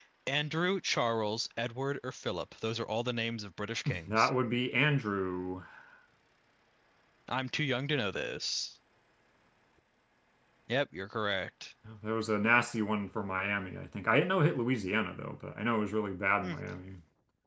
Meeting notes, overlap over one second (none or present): none